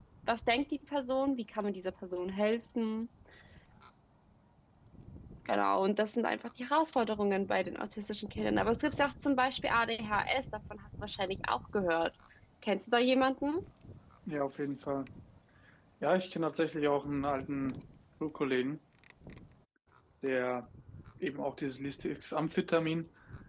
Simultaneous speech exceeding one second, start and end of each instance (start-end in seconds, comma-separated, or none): none